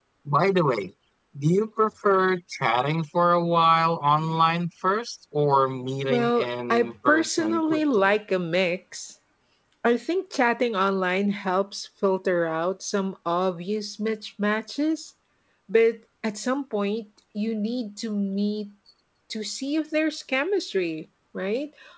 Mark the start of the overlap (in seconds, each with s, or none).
6.1 s